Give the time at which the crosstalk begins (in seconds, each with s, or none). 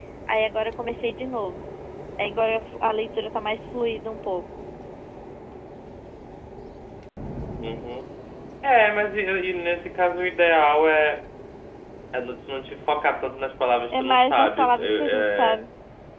13.9 s